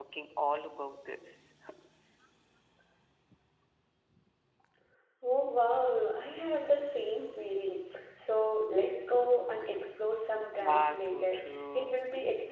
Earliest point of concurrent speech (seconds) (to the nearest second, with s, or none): 11 s